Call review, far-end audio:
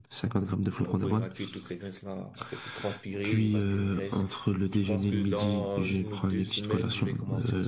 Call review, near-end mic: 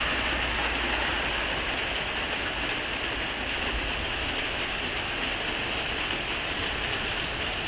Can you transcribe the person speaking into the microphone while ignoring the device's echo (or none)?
none